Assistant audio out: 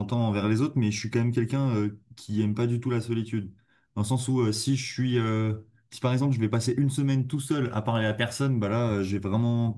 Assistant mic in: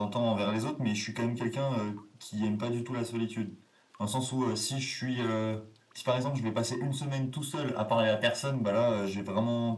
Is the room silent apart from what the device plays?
Yes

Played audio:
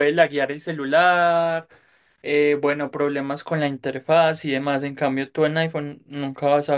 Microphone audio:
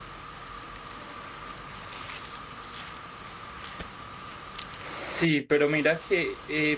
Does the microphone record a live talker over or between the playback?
Yes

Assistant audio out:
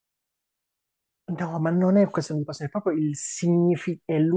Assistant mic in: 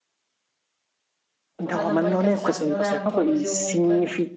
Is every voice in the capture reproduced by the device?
No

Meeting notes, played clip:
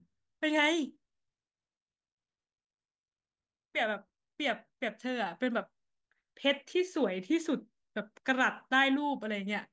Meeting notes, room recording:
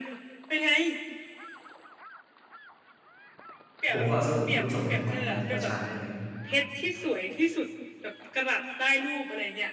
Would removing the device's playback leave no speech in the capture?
No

